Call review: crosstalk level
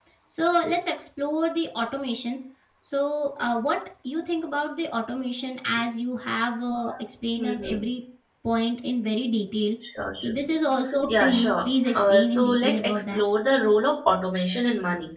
present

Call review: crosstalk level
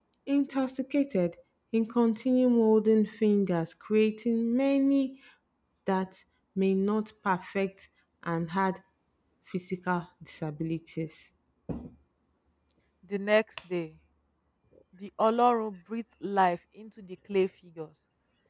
none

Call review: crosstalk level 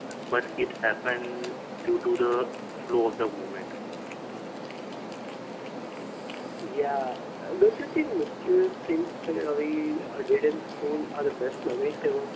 none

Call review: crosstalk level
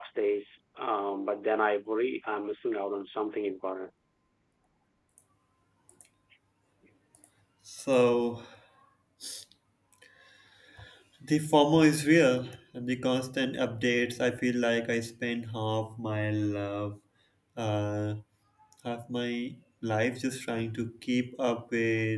none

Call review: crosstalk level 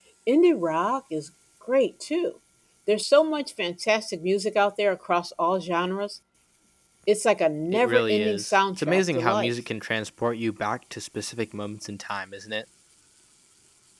present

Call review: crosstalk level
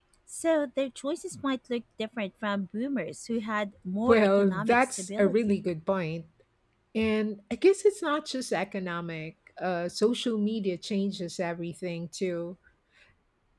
present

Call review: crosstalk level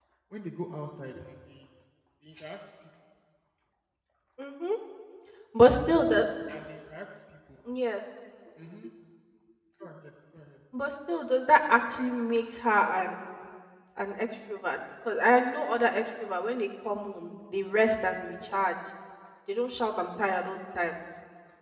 none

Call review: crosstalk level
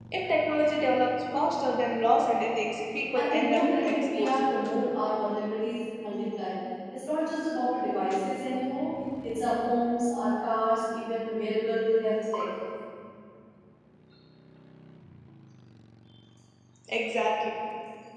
present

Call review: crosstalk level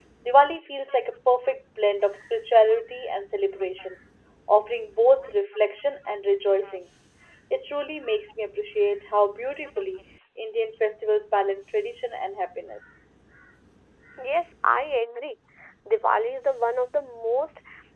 none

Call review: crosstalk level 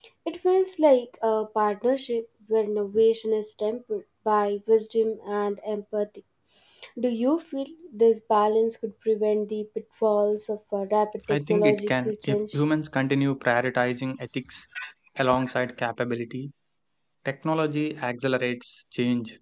present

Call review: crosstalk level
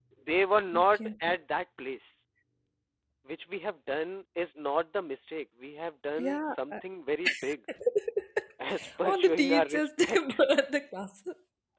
present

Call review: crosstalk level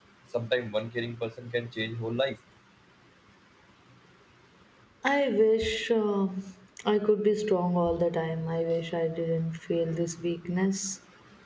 none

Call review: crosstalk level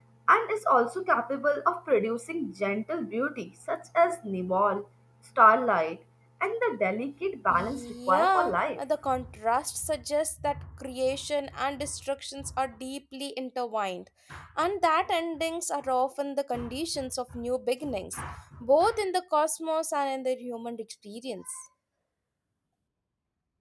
present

